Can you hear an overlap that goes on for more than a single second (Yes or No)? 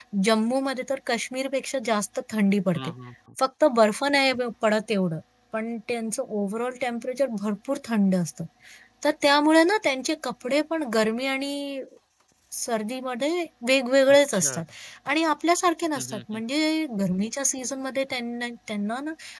No